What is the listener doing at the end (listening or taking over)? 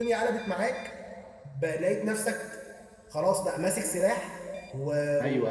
taking over